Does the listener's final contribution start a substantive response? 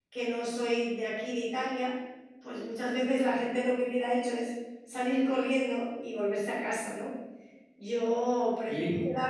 No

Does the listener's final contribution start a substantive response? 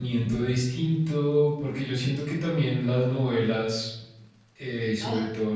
No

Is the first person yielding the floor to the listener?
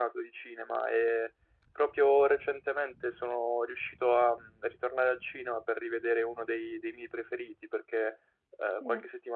No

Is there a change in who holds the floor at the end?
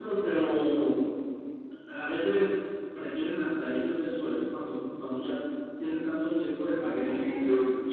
Yes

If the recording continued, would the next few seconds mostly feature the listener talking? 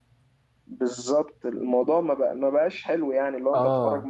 No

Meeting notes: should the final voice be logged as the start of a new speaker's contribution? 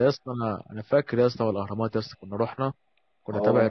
No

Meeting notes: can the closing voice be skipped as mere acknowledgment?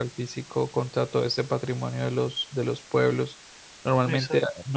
Yes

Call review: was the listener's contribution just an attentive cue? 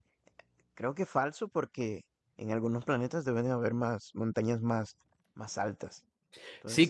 No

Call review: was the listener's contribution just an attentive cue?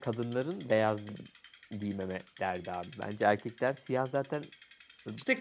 No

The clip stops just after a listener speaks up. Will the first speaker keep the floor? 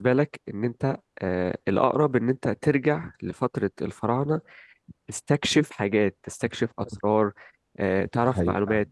No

